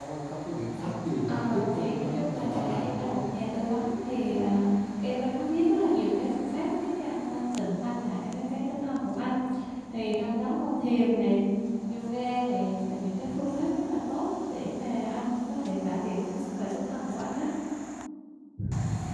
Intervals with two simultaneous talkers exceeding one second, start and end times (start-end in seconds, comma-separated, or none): 1.3-3.2